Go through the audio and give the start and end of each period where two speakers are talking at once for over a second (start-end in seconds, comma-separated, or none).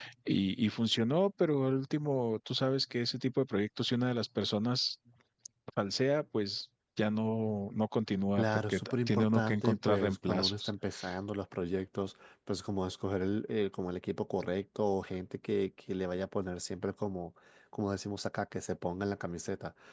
8.4-10.7